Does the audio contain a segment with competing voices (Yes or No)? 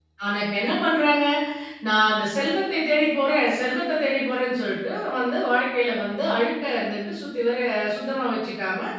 No